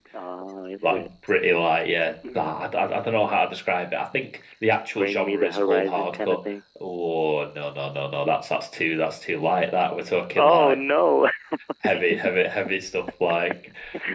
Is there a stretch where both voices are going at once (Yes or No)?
Yes